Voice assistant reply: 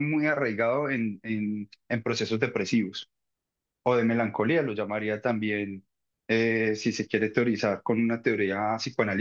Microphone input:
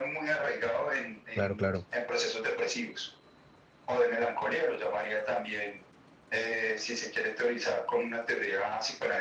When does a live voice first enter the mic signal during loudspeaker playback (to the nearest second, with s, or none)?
1 s